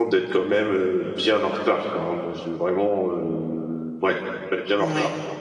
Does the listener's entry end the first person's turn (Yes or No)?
Yes